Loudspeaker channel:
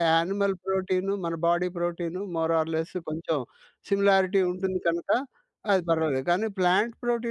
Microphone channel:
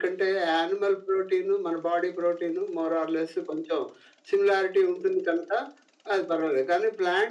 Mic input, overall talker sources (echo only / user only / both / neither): echo only